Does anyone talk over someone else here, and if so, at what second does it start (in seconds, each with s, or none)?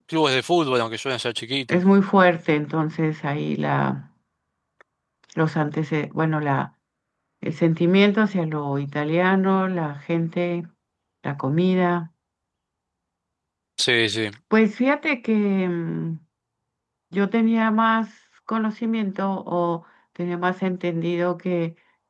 none